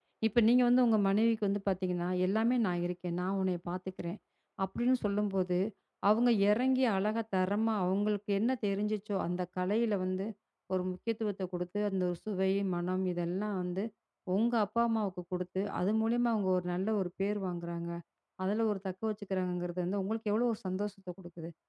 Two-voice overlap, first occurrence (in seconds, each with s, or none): none